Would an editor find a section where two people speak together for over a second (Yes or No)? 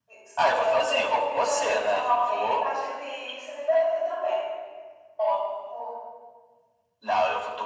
Yes